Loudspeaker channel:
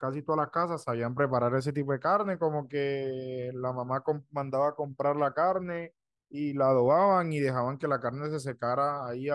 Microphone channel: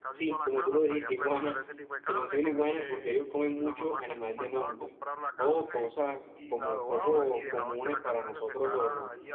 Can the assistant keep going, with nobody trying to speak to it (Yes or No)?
No